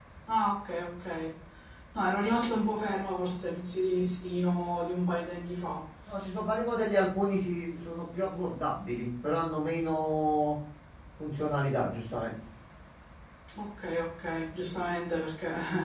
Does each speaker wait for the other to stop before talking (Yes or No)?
Yes